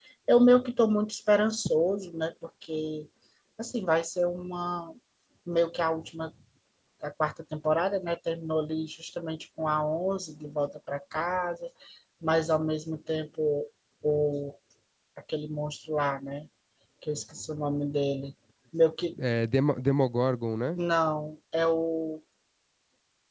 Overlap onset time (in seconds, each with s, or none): none